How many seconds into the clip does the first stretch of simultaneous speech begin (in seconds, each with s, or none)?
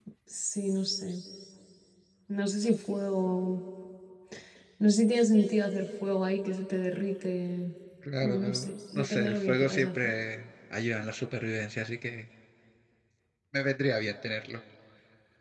8.2 s